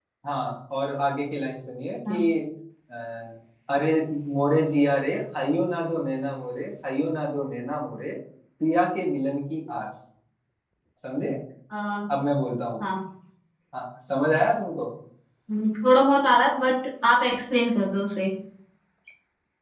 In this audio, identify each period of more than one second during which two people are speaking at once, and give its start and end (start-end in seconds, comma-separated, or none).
none